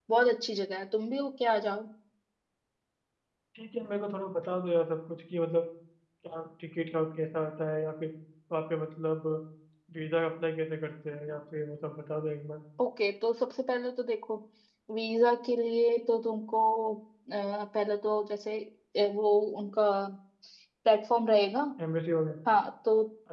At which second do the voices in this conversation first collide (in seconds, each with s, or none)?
none